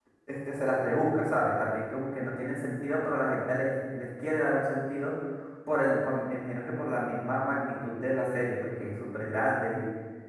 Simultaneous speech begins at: none

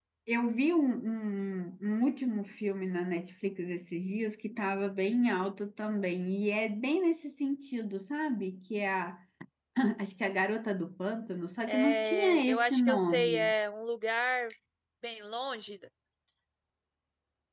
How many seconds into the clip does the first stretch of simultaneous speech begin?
11.7 s

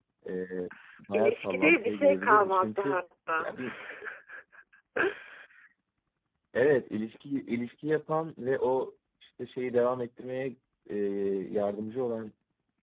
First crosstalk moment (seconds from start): 1.1 s

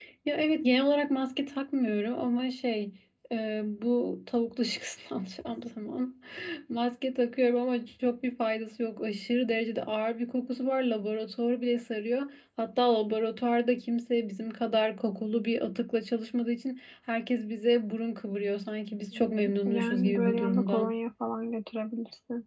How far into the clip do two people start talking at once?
19.1 s

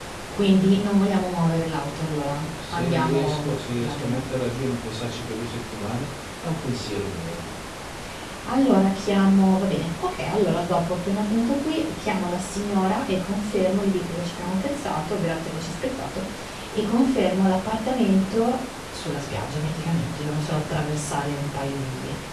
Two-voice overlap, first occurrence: 2.6 s

